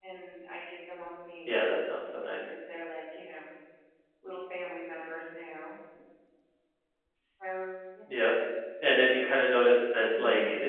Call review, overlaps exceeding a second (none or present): none